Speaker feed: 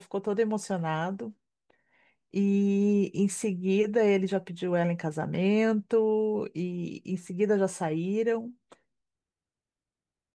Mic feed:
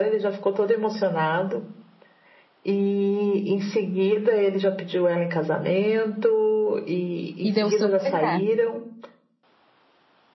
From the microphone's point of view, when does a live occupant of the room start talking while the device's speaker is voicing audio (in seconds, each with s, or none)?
7.4 s